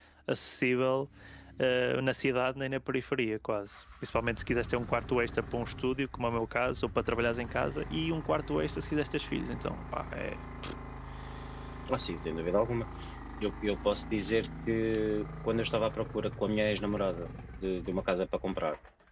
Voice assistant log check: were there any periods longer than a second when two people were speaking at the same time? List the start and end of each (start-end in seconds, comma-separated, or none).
none